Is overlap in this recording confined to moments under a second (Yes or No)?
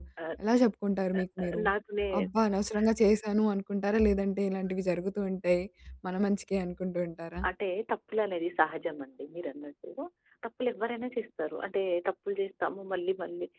Yes